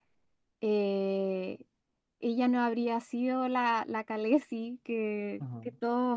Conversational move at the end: listening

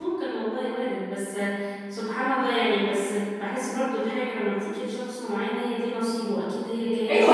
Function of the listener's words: taking over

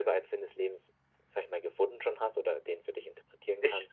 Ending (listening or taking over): taking over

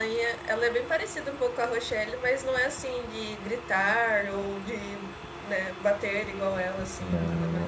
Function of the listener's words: taking over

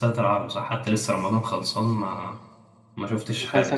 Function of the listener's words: taking over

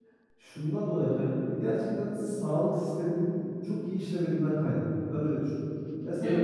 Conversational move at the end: listening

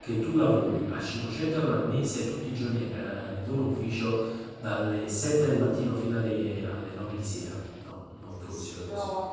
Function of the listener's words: taking over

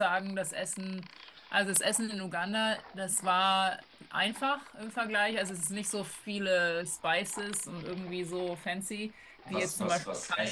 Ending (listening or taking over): taking over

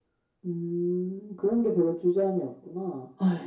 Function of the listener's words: taking over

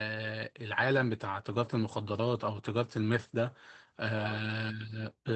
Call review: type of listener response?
listening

